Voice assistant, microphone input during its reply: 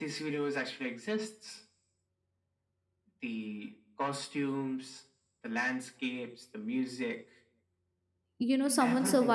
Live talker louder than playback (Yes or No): Yes